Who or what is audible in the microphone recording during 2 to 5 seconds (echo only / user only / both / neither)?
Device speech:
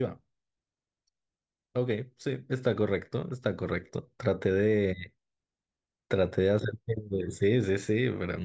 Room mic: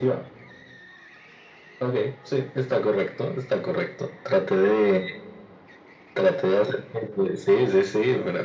echo only